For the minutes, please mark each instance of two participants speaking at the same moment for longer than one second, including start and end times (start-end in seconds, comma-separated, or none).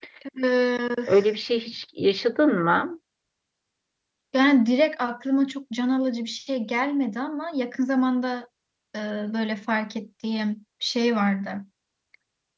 none